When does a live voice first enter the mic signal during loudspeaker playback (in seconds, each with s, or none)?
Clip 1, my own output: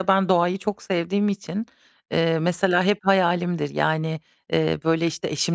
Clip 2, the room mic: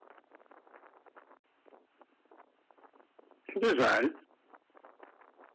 3.5 s